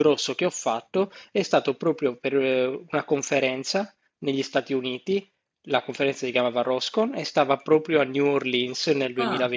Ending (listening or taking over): listening